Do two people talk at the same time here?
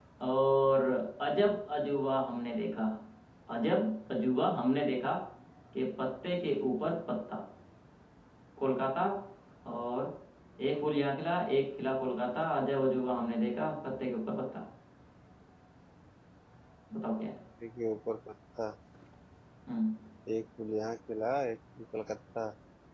No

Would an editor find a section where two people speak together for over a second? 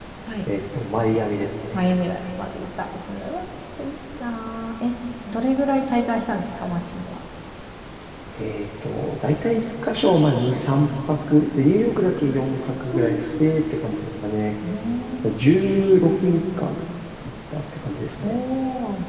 No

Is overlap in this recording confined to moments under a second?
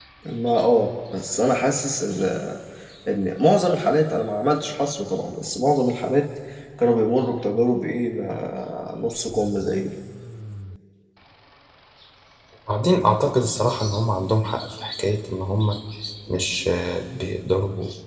Yes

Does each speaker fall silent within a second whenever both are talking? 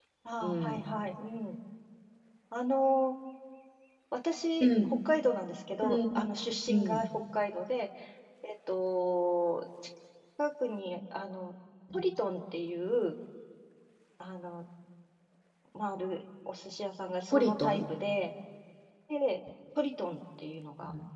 Yes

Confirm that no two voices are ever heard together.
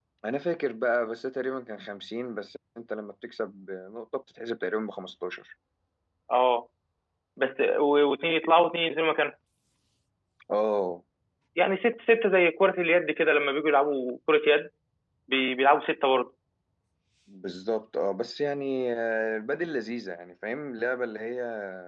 Yes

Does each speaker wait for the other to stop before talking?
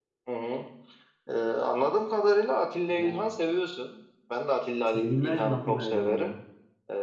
No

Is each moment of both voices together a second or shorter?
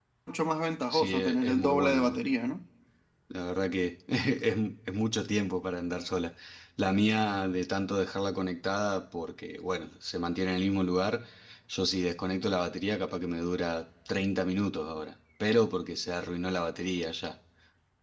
No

